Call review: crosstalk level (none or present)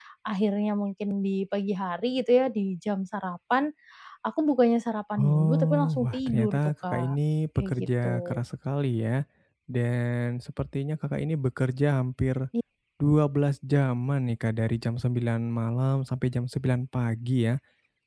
present